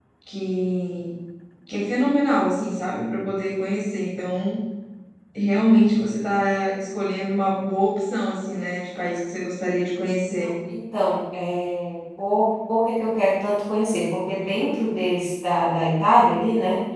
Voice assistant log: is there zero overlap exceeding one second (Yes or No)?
Yes